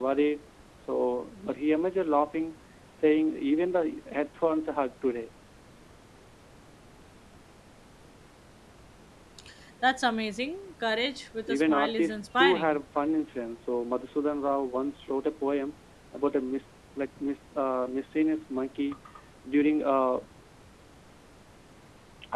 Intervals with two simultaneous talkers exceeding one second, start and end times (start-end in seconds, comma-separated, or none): 11.5-12.8